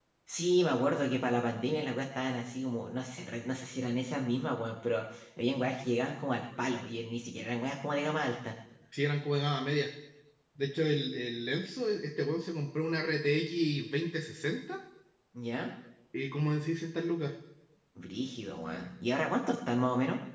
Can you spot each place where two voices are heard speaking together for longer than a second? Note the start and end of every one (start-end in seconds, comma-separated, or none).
none